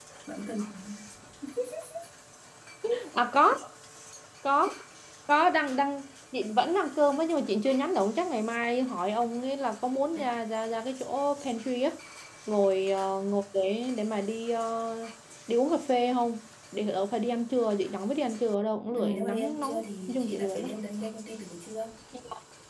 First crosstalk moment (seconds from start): 18.9 s

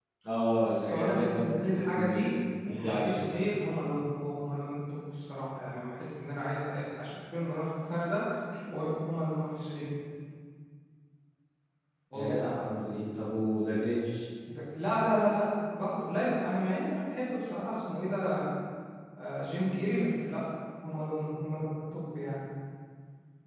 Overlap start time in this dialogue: 0.6 s

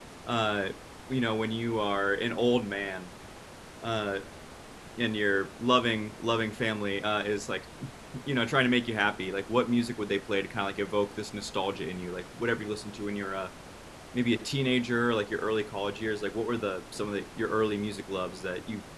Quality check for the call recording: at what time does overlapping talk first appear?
none

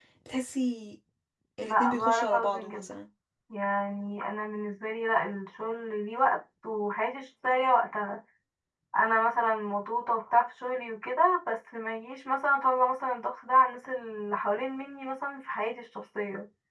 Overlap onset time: 1.6 s

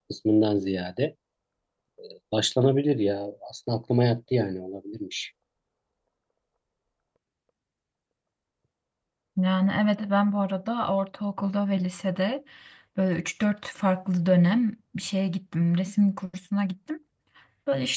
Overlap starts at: none

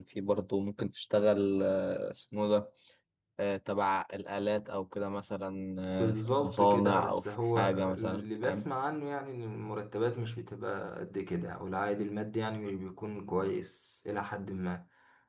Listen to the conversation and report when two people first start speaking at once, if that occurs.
6.0 s

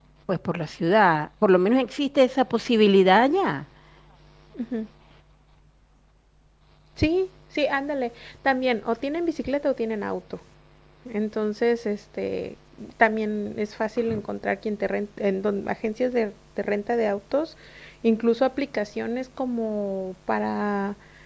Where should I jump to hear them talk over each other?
none

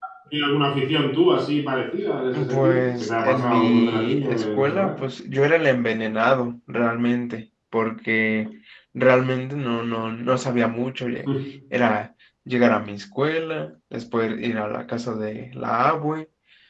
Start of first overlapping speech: 2.3 s

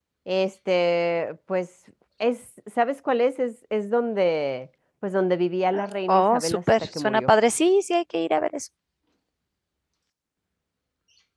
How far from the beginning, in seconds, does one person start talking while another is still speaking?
6.1 s

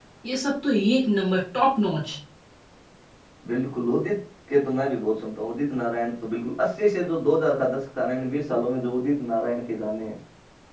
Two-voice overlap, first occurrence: none

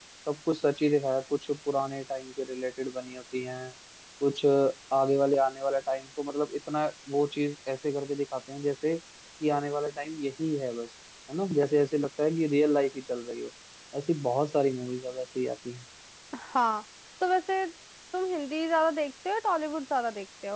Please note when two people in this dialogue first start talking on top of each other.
none

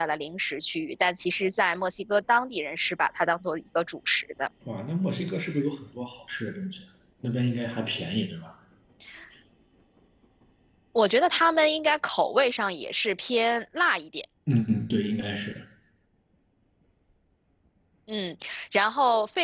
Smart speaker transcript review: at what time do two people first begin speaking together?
none

